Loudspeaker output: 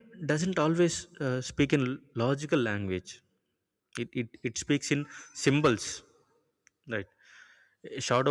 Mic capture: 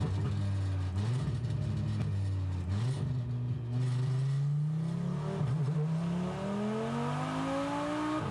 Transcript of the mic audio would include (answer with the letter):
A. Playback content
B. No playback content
B